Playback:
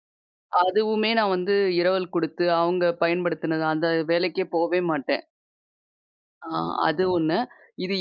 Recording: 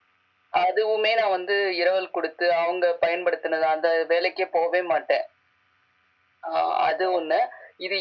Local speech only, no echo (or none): none